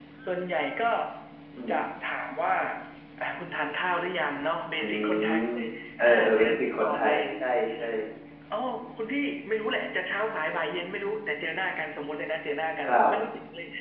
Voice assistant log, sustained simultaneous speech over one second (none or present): present